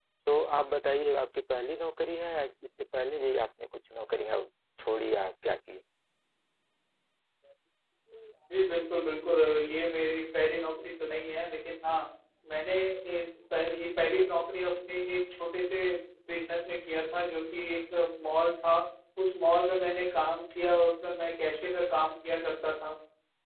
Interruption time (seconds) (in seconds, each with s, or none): none